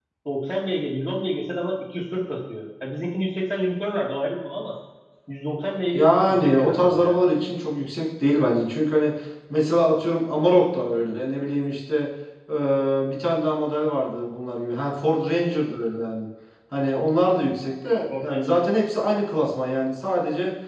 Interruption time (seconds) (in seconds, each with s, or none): 5.9 s